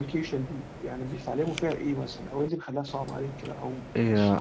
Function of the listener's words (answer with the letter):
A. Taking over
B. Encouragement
A